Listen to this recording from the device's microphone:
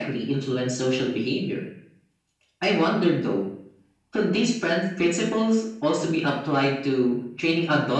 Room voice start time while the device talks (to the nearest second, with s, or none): none